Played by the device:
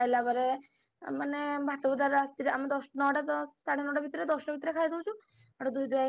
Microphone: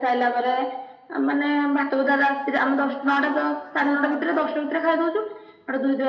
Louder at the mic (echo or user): echo